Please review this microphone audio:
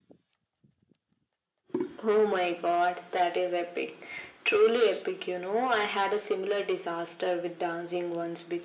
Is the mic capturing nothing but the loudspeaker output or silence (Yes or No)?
Yes